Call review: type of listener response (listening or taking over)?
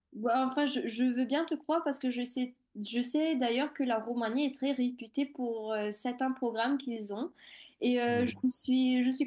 listening